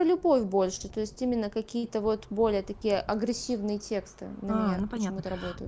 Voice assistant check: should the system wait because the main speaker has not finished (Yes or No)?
No